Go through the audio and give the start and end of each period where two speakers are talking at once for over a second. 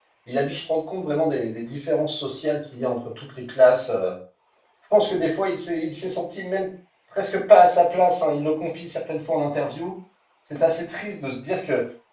none

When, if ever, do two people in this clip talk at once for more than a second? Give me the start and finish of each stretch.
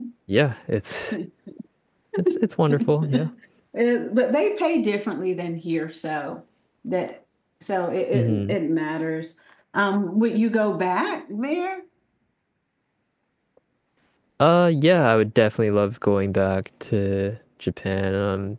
none

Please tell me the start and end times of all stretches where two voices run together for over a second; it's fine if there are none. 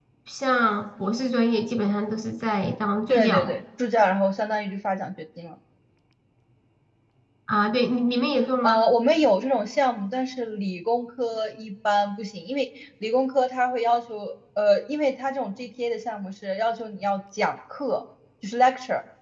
none

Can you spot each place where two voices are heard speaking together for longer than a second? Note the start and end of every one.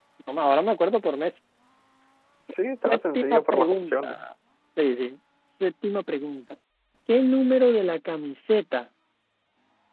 2.8-4.2

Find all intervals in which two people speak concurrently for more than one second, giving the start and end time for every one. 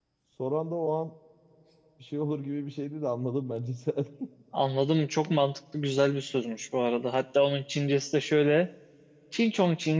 none

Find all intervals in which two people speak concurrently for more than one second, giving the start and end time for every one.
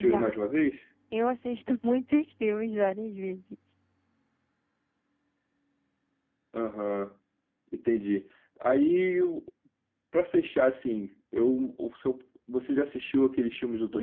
none

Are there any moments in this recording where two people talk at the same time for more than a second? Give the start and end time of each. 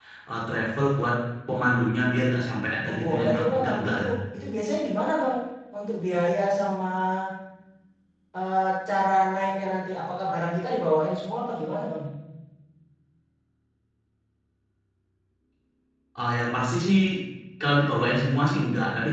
2.8-4.1

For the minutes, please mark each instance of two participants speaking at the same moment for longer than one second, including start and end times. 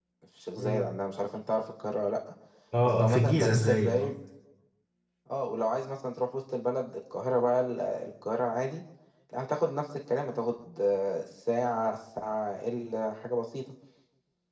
2.8-4.2

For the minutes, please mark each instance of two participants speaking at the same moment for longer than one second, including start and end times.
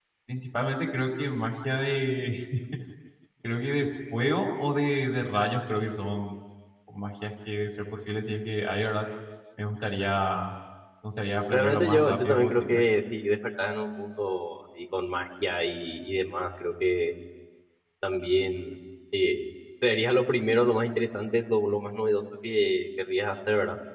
11.5-12.8

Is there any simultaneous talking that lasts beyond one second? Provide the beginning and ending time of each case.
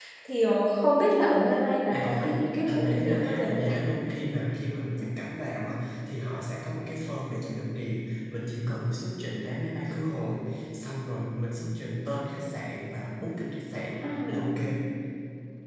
1.9-3.7

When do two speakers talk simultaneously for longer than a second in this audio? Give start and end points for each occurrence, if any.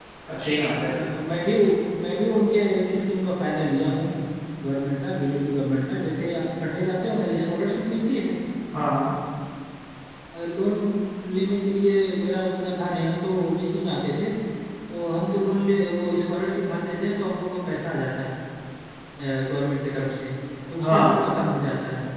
none

